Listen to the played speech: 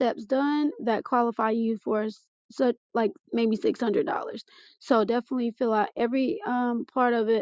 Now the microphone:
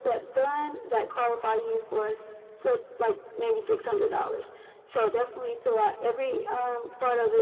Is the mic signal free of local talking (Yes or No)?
Yes